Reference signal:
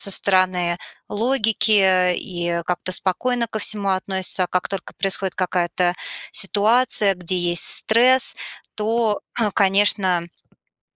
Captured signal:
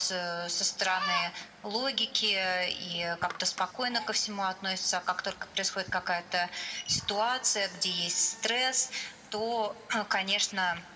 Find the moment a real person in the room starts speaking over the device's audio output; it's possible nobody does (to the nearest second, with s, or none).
none